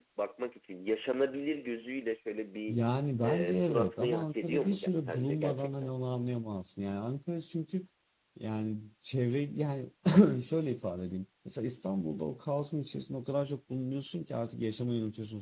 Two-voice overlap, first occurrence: 3.2 s

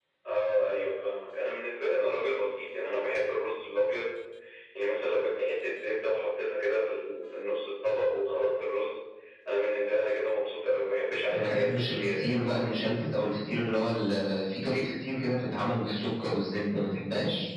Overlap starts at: 11.3 s

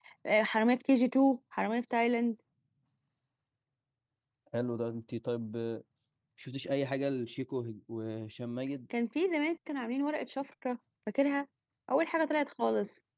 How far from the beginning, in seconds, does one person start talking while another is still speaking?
none

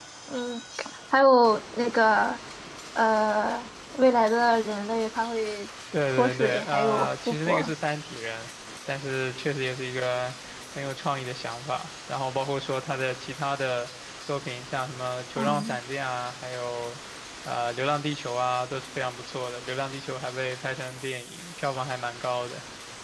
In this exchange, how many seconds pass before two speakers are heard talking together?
6.1 s

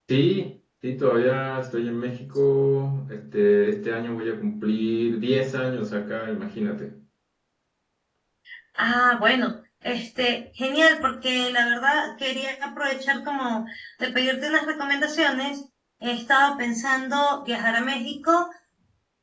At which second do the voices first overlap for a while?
none

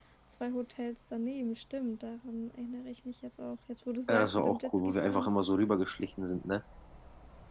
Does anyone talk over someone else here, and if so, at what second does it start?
4.1 s

